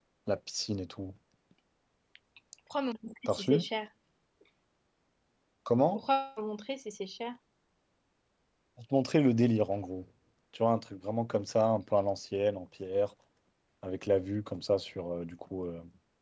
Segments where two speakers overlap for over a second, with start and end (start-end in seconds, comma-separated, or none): none